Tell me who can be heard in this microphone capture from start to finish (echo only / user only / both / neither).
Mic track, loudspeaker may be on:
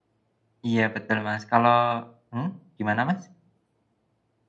user only